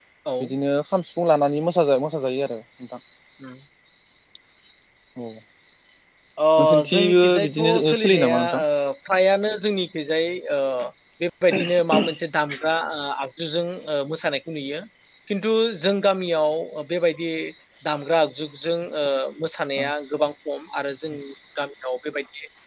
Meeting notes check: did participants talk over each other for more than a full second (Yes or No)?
Yes